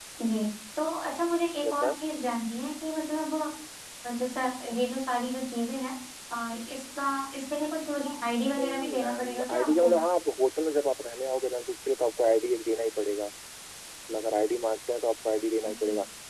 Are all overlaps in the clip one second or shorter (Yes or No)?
No